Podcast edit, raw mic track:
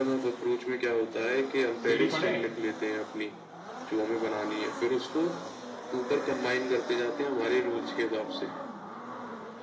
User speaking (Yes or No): Yes